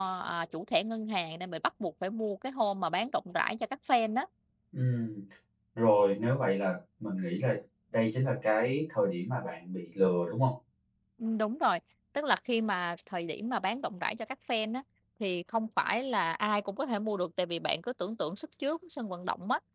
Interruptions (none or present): none